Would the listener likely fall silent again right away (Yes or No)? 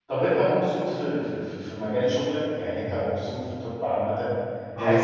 Yes